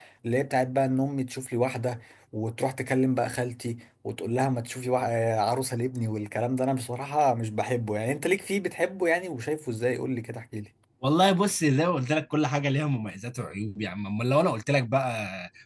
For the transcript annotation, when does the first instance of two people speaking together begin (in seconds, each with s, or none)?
none